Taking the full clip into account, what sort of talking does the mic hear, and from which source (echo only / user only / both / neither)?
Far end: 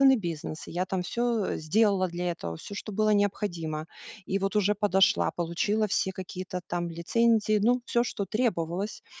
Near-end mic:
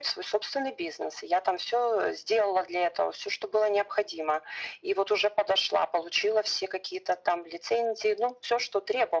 echo only